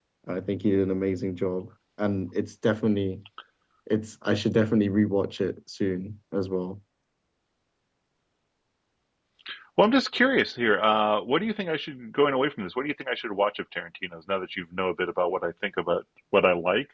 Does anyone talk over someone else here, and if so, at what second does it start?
none

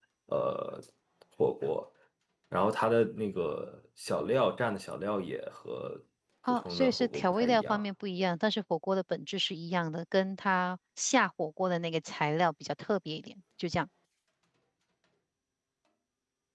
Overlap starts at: 7 s

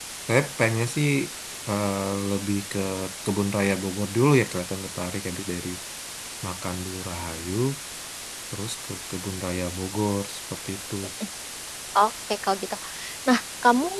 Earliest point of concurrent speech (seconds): none

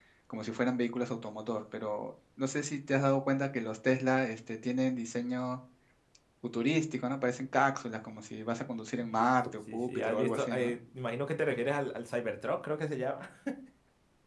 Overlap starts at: 9 s

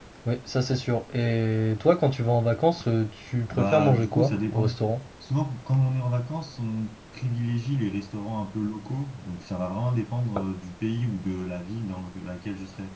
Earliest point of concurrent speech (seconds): 4 s

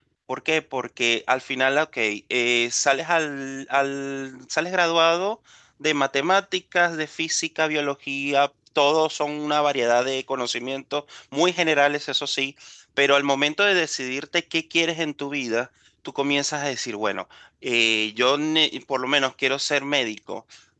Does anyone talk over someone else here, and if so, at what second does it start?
none

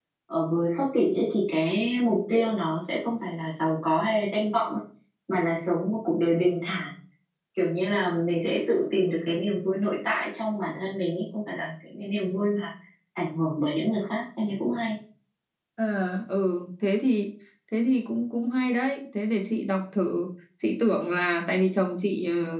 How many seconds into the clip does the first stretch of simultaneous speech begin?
none

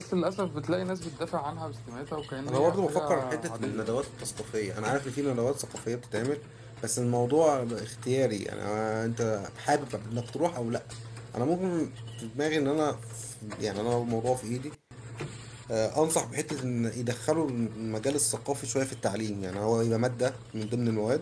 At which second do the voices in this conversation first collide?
2 s

